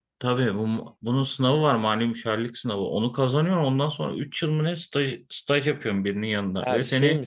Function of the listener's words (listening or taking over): taking over